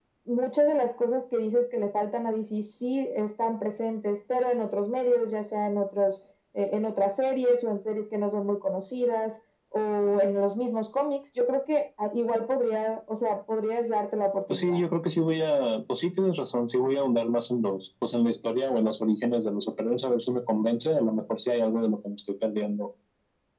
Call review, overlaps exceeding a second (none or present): none